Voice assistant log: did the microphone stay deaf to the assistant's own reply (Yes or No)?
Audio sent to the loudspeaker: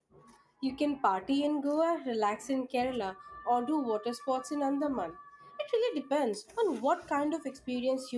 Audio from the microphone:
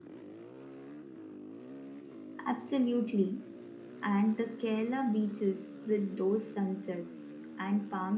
Yes